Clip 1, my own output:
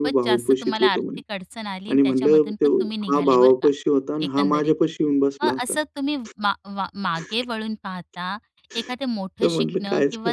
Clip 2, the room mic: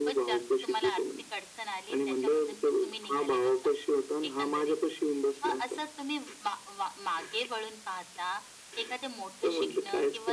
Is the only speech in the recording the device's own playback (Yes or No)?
Yes